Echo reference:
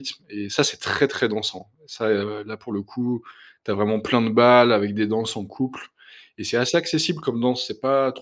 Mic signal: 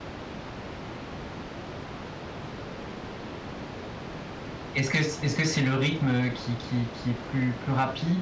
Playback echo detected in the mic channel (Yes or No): No